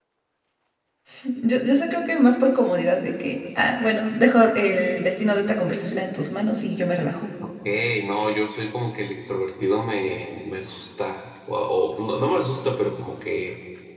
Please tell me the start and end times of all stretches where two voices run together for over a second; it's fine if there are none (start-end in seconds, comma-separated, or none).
none